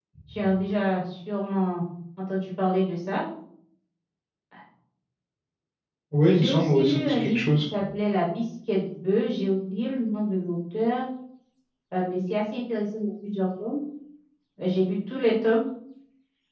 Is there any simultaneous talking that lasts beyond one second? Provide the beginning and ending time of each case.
6.3-7.6

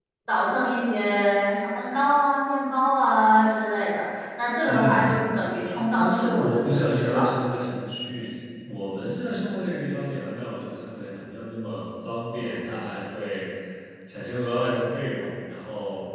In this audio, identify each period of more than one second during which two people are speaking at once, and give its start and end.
6.0-7.3

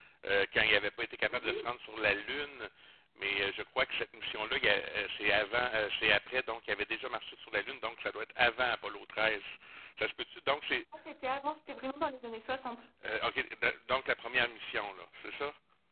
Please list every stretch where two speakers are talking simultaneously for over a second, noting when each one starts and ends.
none

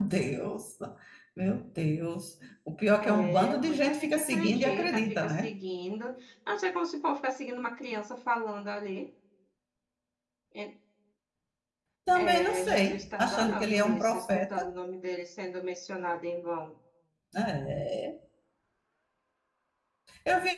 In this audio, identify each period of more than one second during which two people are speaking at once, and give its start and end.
3.0-5.5, 12.2-14.7

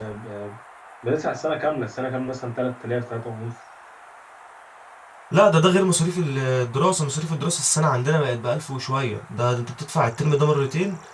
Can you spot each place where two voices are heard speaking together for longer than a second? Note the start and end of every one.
none

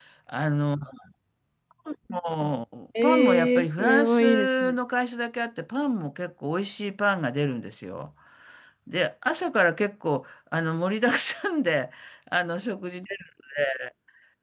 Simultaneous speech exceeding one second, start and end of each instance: 3.0-4.8

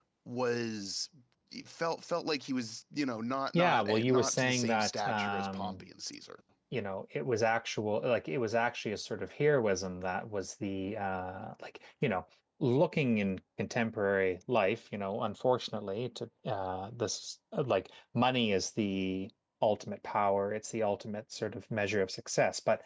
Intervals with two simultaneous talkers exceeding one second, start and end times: 3.5-5.8

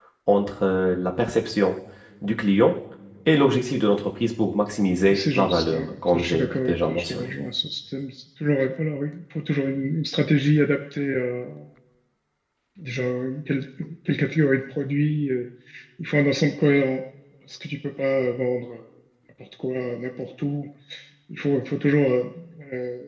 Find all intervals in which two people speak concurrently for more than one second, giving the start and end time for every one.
5.1-7.3

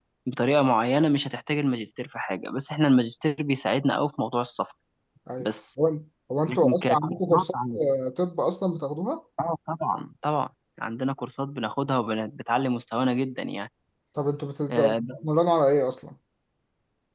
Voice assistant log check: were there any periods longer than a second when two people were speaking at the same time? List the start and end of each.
6.5-7.8

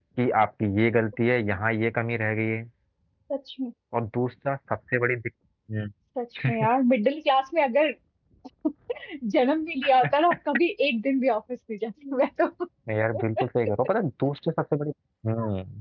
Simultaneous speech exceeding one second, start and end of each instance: none

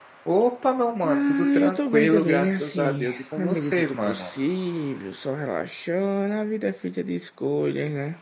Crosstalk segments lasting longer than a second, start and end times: 1.0-4.3

